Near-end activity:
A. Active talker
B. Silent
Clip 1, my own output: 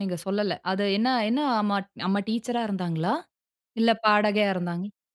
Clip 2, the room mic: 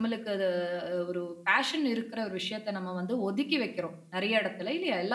A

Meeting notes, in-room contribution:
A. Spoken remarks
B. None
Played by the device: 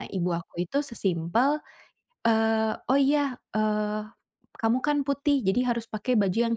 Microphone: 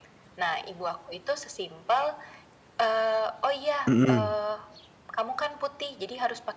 A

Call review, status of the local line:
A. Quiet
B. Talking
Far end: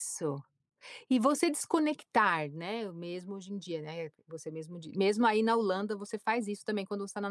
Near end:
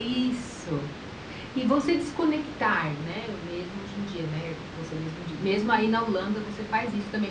A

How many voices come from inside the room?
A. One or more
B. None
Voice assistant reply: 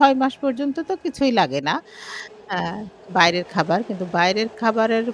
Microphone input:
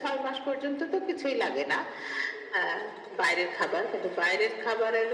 B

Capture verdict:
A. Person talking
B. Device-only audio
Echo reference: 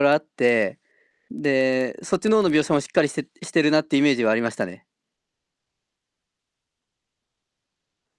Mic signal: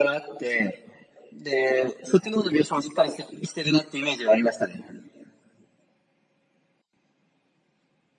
B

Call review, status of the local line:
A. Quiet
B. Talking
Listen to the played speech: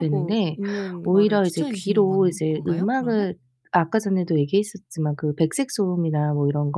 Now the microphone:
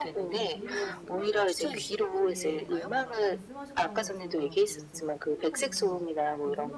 B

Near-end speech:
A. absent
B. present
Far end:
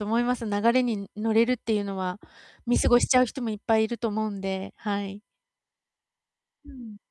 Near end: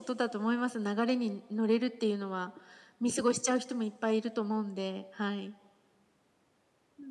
A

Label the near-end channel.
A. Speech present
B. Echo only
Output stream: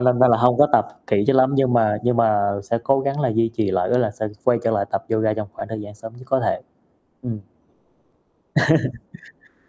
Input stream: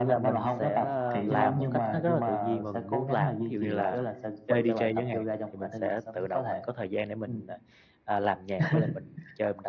A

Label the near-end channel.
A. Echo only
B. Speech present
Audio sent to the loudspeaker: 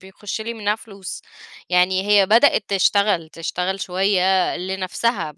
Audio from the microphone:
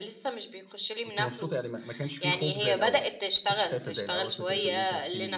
B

